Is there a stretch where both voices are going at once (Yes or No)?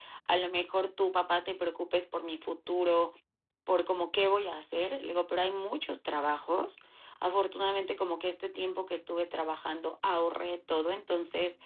No